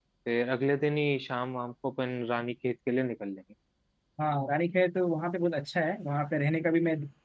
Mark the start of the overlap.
none

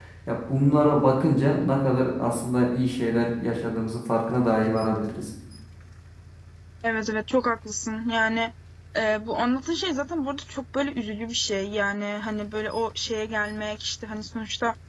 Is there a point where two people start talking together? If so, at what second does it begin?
none

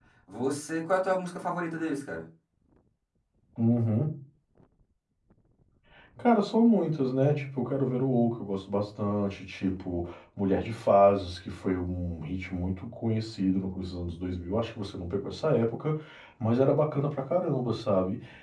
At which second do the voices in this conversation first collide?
none

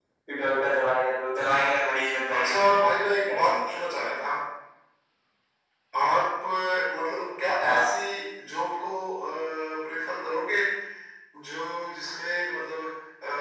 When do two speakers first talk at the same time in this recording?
2.3 s

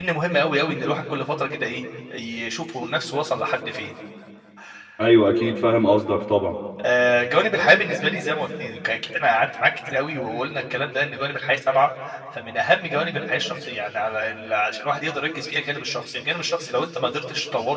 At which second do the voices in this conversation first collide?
none

